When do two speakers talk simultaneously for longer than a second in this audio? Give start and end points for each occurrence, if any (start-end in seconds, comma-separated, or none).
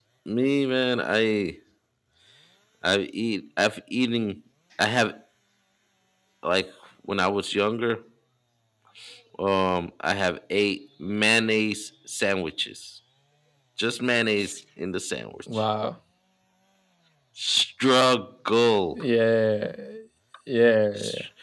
none